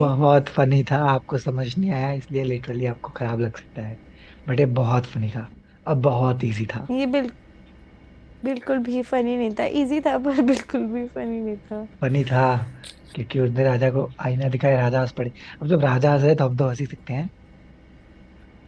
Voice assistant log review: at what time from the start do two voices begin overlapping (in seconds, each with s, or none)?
none